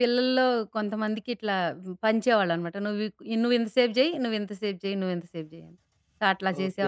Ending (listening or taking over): listening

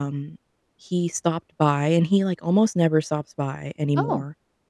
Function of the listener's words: listening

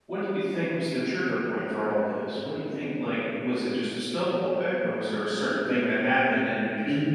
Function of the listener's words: taking over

